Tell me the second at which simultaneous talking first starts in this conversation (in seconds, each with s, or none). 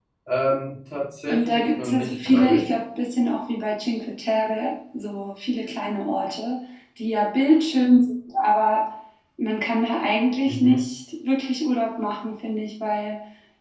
1.3 s